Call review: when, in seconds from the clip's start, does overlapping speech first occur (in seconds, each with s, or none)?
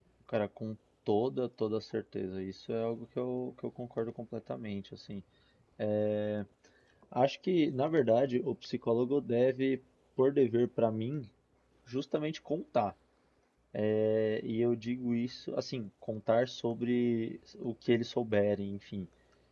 none